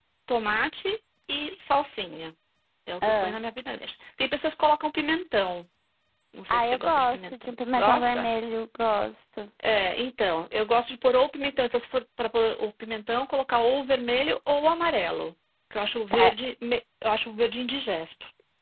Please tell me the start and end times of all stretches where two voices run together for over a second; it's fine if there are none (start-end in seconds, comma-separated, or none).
6.5-8.3